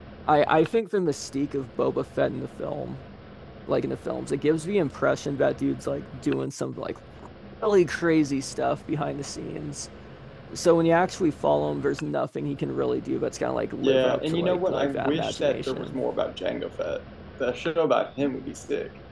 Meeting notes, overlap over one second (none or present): present